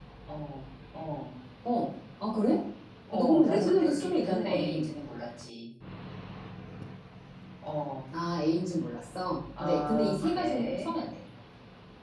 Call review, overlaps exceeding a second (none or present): present